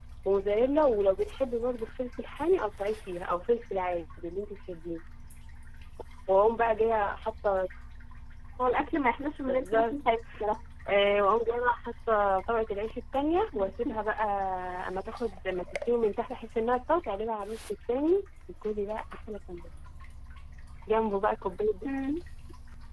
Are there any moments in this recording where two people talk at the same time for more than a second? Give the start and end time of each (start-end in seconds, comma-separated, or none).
none